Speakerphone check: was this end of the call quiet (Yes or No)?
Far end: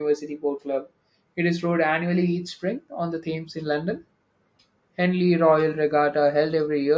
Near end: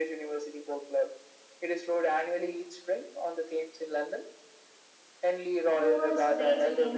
No